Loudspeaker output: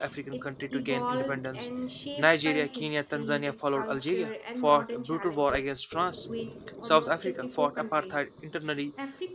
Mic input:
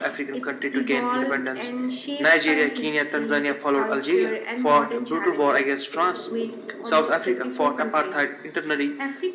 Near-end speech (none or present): none